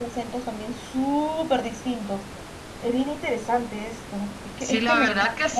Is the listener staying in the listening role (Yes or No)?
No